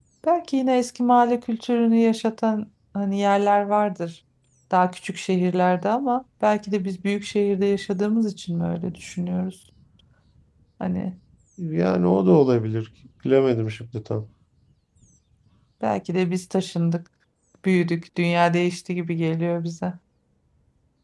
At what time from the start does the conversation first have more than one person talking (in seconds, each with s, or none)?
none